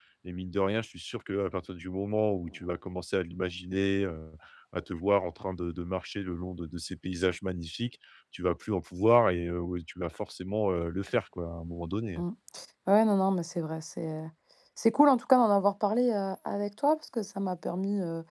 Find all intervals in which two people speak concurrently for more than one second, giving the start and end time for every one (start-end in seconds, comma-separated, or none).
none